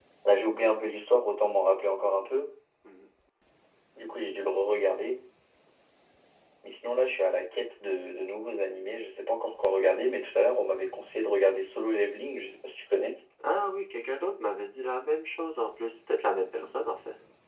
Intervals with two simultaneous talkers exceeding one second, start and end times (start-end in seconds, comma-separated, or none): none